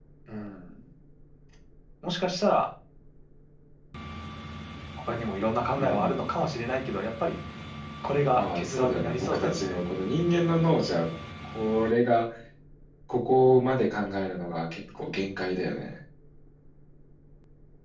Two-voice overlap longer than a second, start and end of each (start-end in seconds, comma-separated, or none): 8.3-9.8